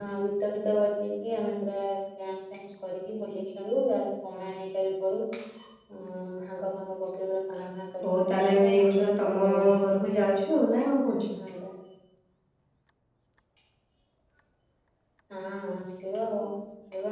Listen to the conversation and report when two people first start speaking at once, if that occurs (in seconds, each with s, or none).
8.0 s